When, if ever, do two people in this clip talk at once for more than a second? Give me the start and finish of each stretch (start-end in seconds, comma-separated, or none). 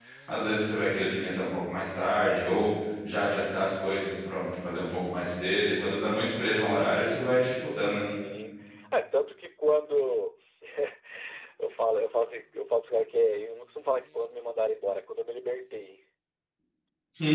none